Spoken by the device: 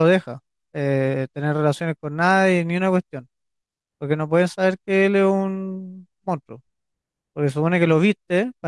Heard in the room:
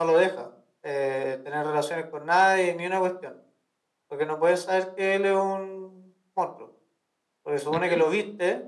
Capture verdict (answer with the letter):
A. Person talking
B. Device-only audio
A